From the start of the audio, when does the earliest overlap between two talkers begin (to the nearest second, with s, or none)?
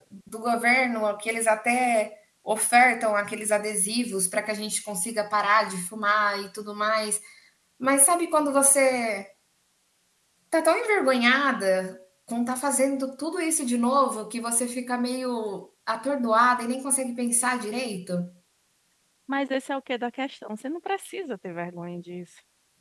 none